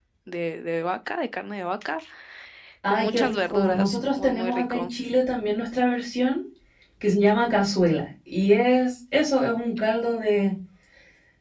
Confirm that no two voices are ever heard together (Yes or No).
No